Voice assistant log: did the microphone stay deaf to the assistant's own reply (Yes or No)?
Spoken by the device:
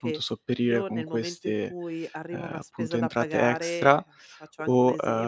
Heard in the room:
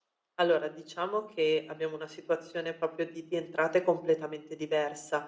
Yes